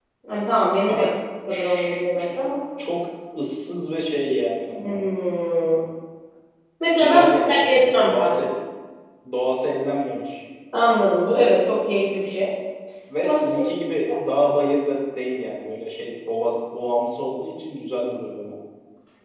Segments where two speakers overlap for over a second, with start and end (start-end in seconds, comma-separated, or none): 7.0-8.3